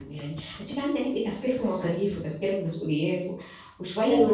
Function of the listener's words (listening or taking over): taking over